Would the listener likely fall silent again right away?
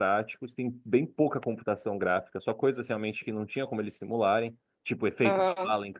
Yes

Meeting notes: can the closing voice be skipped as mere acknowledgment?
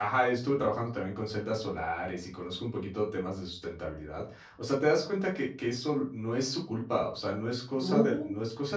Yes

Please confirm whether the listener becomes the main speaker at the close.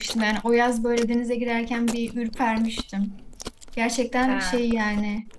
No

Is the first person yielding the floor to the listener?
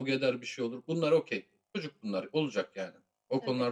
No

